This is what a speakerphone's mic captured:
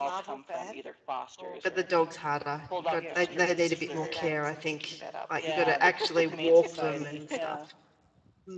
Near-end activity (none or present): present